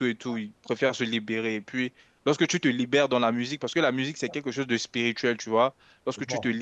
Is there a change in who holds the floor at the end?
No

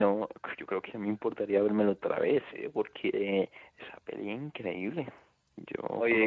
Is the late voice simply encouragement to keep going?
No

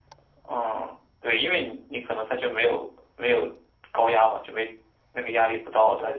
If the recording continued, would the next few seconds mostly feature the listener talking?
Yes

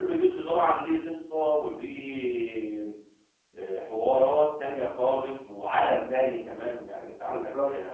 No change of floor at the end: Yes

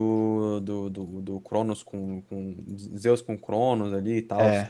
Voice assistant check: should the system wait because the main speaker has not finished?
Yes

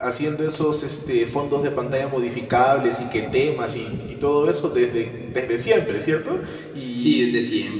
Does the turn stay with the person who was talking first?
No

